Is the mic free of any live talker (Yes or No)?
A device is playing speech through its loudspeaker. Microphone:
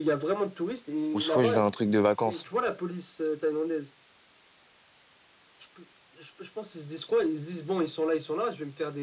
No